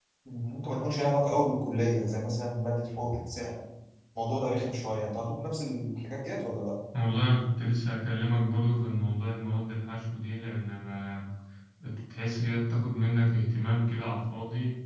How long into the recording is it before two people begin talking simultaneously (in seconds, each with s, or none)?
none